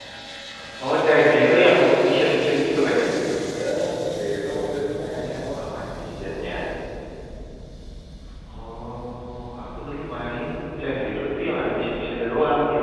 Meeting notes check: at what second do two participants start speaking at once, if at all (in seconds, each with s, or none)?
none